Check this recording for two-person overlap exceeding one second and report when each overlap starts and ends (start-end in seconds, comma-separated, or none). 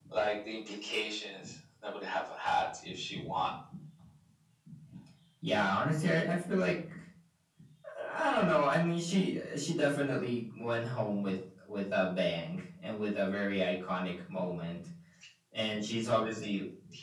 none